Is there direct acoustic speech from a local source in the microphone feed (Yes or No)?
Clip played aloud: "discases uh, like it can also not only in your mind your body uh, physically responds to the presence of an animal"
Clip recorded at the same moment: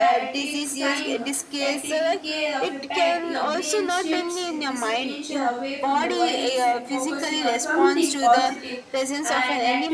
Yes